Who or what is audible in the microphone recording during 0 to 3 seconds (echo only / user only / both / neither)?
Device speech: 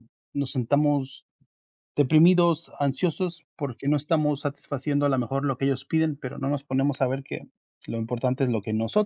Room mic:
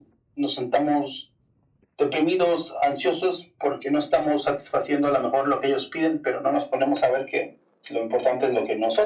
echo only